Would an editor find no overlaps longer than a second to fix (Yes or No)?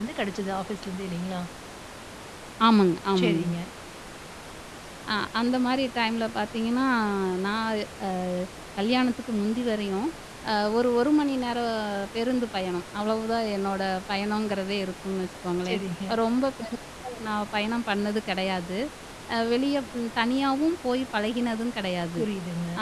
Yes